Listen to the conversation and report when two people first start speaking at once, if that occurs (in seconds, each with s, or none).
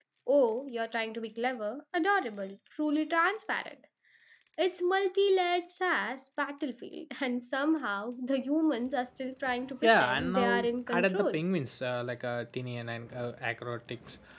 9.8 s